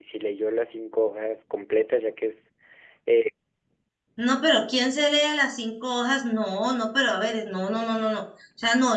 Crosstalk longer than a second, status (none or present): none